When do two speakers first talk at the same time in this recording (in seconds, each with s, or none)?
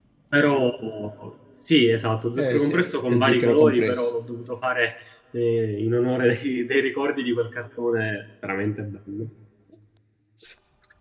2.4 s